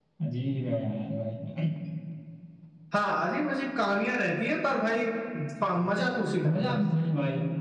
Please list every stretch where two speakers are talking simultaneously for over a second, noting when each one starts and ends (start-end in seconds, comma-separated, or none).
none